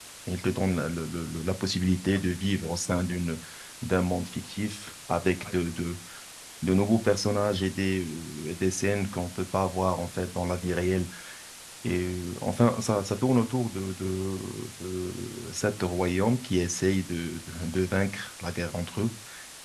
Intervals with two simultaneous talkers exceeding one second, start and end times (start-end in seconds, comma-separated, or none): none